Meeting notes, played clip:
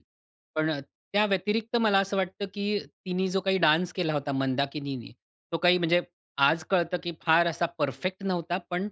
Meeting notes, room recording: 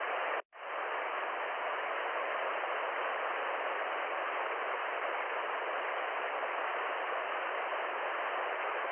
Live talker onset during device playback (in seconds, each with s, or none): none